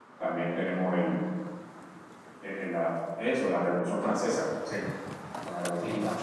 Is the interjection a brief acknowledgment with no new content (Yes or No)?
Yes